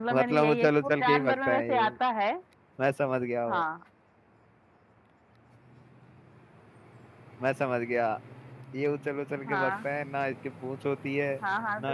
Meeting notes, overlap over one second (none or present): present